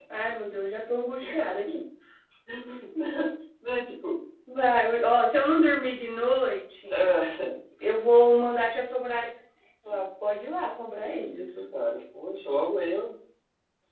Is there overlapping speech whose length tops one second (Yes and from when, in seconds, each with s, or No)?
No